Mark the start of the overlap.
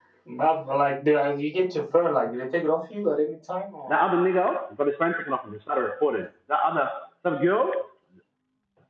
none

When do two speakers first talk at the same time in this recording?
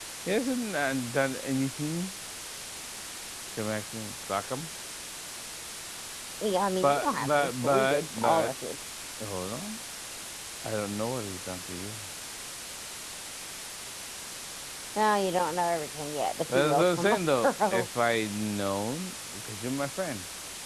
6.8 s

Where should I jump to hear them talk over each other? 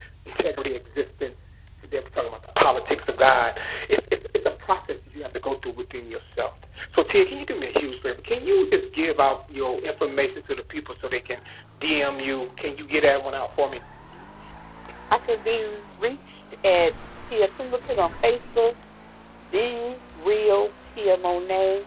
none

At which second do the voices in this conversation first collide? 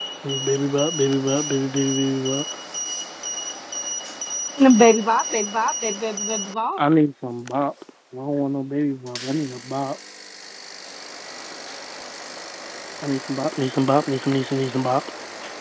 none

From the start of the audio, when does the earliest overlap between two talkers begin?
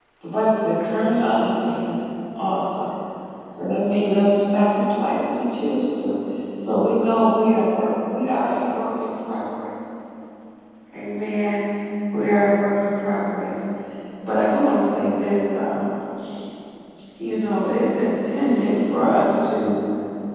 none

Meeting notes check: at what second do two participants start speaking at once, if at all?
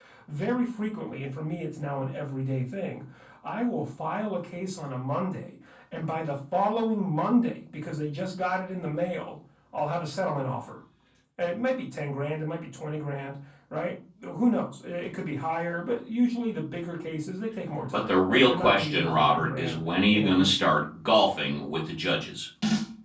17.9 s

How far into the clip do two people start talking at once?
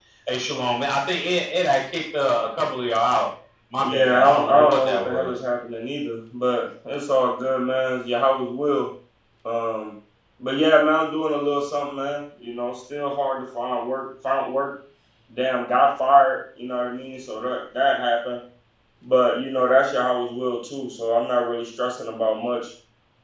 3.8 s

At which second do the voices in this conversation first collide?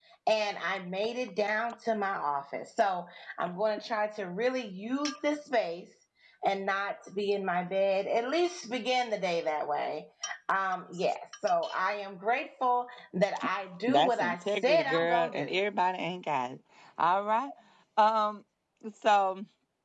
13.9 s

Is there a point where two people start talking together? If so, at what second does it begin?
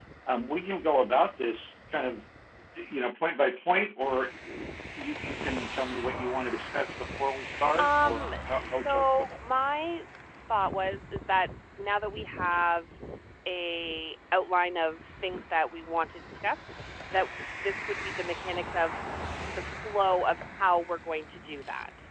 7.5 s

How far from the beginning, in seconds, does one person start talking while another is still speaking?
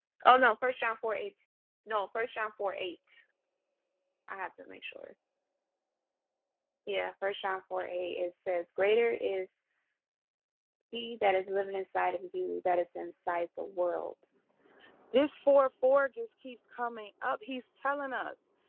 none

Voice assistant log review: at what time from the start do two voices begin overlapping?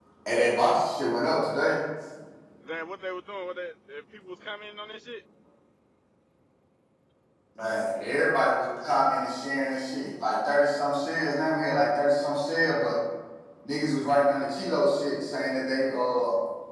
none

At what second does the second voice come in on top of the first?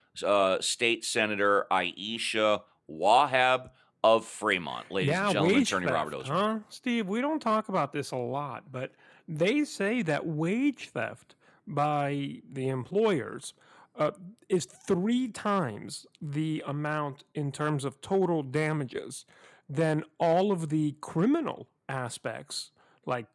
5.0 s

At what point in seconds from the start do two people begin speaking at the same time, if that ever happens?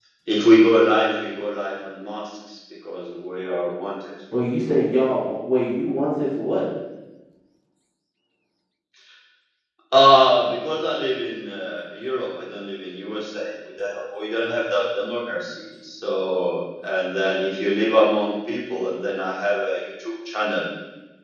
none

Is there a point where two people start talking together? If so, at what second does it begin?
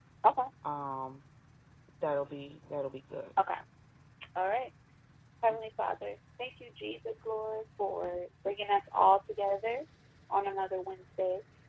none

